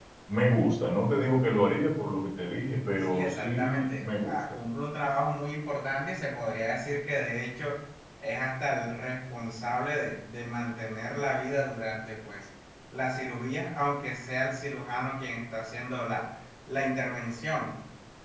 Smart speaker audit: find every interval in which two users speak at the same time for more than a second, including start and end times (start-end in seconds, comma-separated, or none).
3.0-4.6